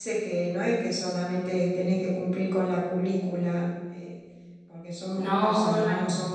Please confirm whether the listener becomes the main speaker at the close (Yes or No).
No